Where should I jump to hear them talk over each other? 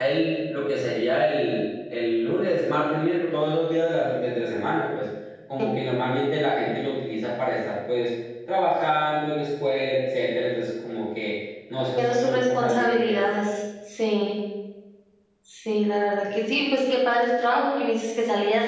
12.0 s

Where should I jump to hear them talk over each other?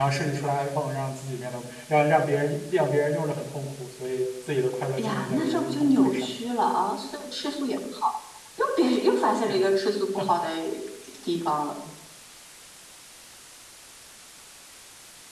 5.0 s

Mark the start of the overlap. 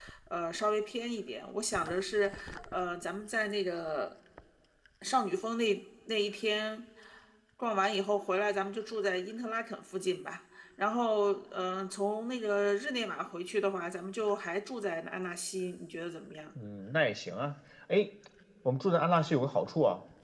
none

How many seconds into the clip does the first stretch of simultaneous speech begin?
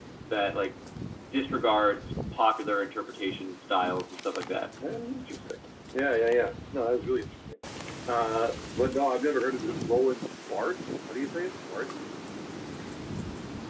none

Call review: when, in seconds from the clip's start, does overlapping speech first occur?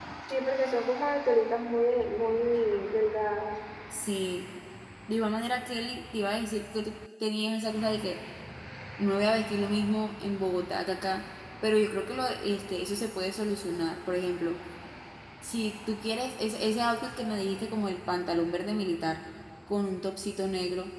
none

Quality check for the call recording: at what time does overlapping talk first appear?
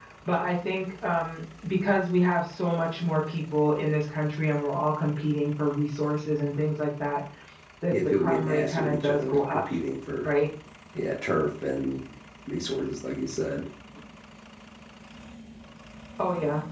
7.9 s

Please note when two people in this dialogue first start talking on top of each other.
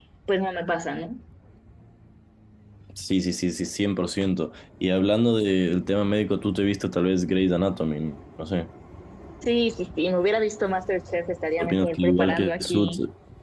11.6 s

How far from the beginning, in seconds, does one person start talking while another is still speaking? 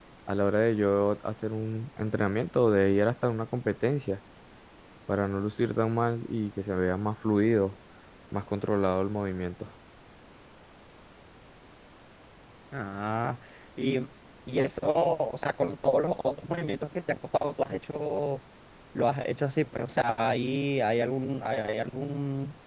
none

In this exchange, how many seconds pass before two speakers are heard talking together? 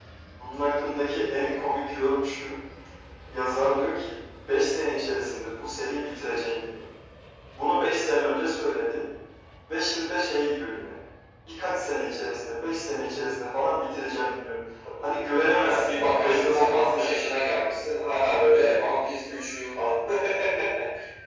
15.6 s

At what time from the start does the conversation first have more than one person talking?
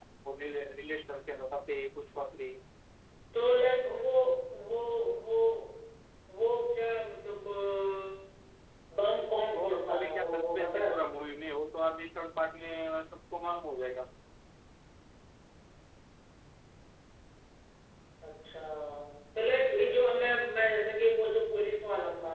9.5 s

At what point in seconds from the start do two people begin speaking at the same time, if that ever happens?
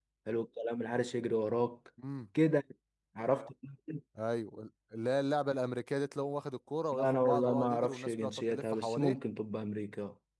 6.9 s

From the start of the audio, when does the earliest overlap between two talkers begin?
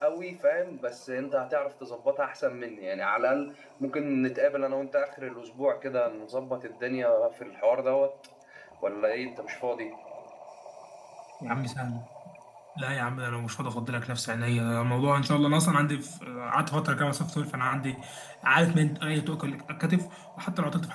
none

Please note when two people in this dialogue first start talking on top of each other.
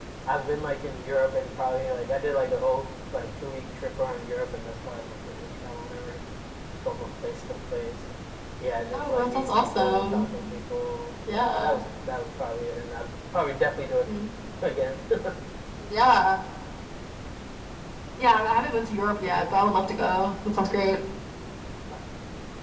8.9 s

